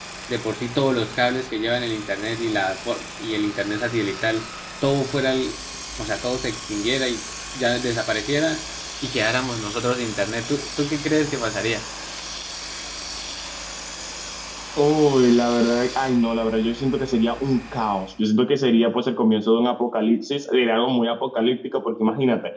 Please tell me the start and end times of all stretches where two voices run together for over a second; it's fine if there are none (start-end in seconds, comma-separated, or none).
none